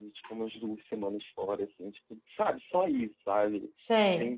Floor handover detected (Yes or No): No